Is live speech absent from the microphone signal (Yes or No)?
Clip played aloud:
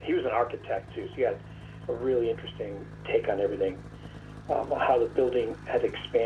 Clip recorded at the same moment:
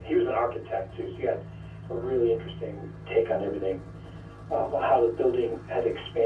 No